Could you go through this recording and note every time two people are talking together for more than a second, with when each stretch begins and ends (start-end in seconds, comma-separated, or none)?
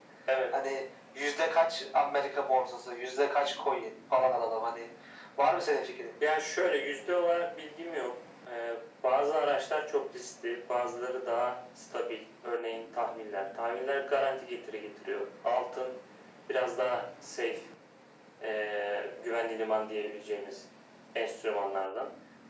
none